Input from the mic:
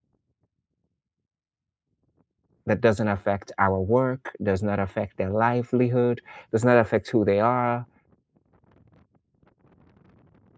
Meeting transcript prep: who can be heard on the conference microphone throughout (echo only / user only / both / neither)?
user only